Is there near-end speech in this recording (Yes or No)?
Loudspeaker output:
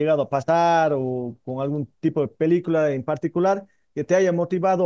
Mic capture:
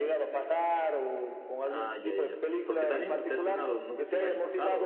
Yes